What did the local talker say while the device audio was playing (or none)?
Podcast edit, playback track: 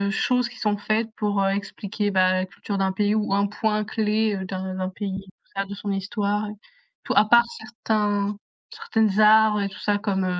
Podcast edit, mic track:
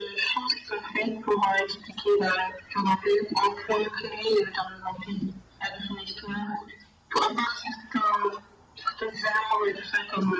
none